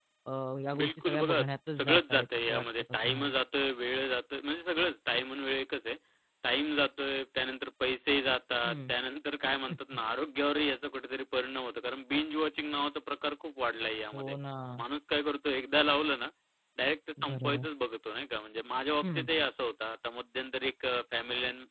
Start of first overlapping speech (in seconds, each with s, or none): 0.8 s